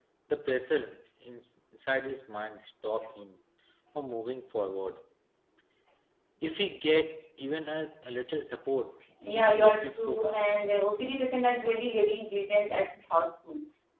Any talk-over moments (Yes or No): Yes